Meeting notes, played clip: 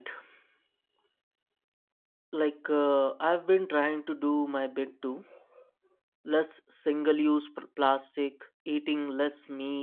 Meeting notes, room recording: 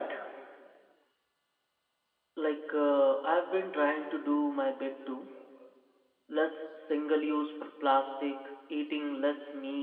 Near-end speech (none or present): none